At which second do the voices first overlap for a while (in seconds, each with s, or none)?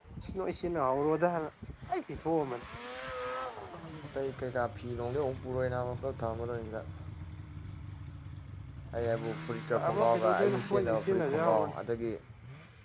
9.8 s